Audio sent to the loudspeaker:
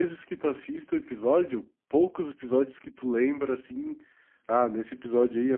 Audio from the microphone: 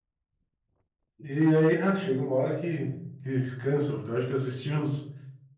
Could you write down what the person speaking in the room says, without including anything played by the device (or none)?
e aí ah, chega uma hora que, que cansa, porque eu acho que eu assisti uns,